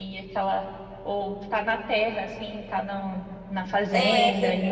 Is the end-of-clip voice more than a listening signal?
Yes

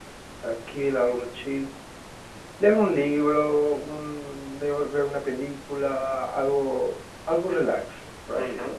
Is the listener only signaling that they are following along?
No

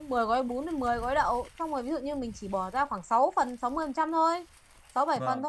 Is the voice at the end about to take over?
No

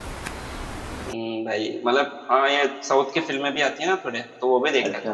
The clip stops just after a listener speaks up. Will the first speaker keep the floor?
No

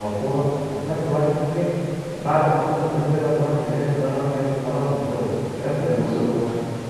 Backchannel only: No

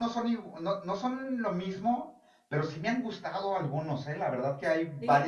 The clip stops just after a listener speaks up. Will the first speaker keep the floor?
Yes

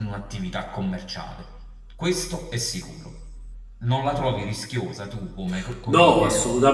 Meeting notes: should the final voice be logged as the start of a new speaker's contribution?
Yes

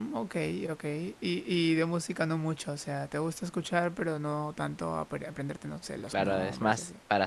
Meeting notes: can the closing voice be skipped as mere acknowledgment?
No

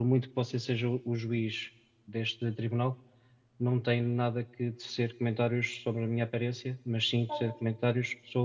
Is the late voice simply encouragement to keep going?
Yes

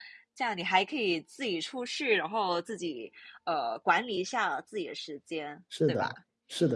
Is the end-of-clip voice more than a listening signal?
Yes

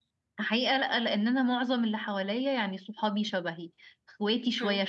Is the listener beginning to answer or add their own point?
No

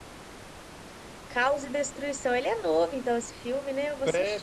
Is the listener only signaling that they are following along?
No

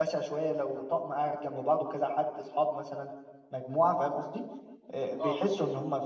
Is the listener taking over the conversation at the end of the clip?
No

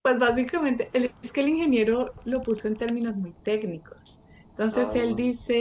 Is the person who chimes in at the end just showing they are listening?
Yes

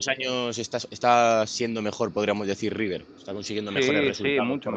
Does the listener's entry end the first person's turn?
Yes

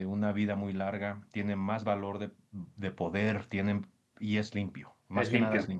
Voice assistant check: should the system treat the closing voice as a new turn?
Yes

